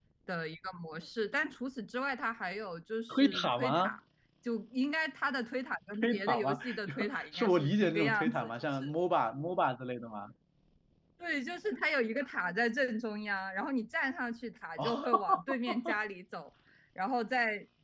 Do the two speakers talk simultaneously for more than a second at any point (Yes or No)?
Yes